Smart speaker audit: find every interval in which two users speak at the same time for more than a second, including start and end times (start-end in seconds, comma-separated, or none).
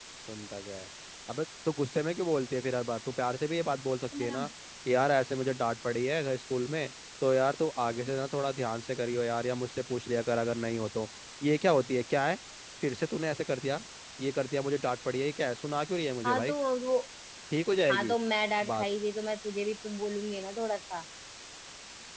none